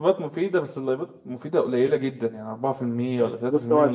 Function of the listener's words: taking over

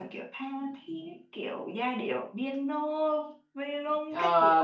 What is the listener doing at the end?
taking over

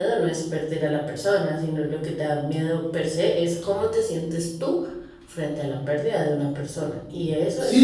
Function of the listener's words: taking over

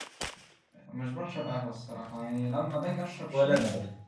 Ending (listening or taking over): listening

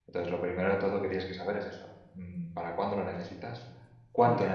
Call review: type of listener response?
taking over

